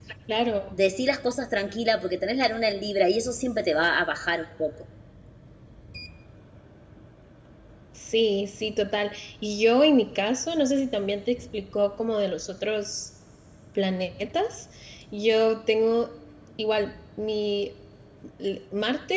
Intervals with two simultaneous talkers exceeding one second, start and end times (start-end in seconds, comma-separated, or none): none